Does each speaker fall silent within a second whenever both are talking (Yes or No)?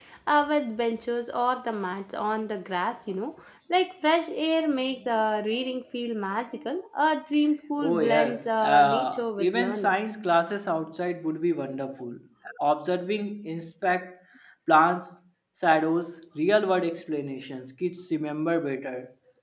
No